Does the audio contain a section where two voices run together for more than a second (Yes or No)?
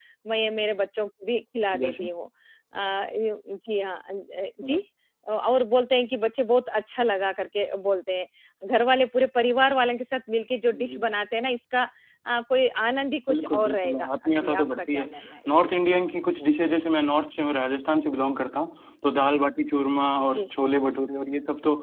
Yes